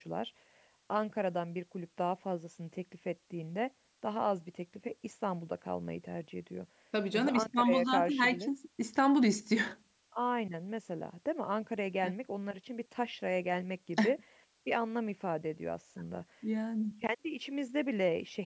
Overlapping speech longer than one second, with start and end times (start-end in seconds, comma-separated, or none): 7.1-8.5